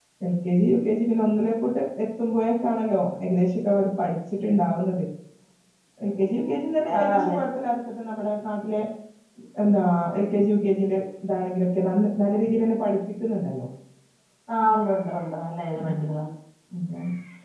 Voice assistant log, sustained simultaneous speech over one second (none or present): none